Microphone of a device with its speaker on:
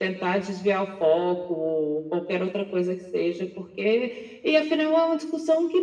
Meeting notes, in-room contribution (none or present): none